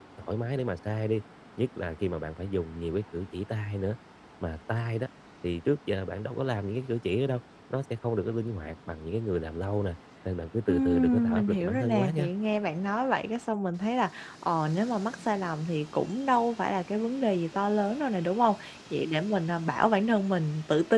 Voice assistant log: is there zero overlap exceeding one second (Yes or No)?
No